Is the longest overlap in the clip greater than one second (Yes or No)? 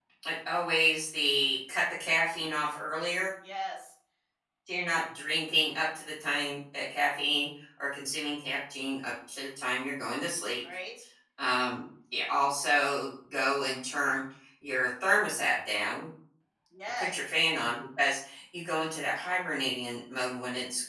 No